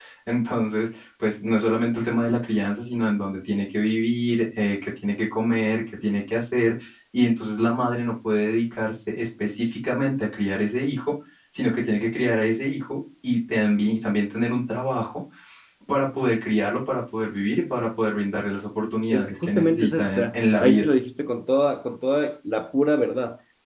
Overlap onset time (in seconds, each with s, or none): 19.1 s